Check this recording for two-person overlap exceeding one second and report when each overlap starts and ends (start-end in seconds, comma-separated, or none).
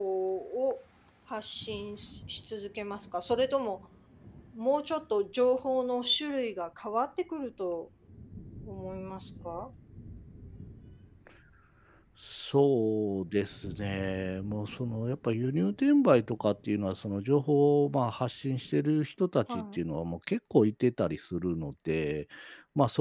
none